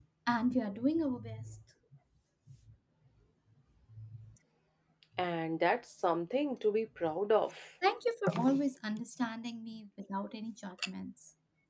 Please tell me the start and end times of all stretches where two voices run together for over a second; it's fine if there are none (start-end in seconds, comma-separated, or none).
none